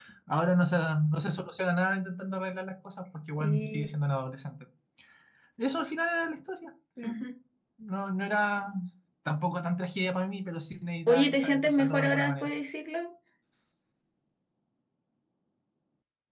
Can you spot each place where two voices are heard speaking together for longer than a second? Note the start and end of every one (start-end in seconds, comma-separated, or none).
11.1-12.5